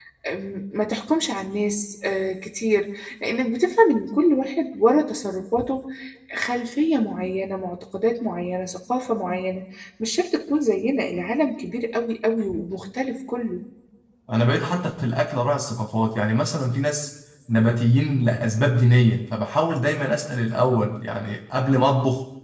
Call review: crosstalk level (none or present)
none